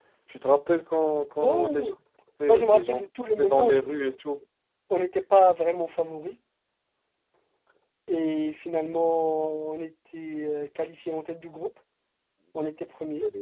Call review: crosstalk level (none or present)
present